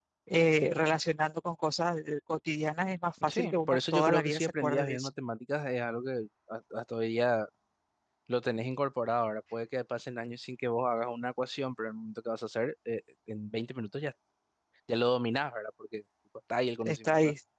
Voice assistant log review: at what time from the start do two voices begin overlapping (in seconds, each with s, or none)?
3.3 s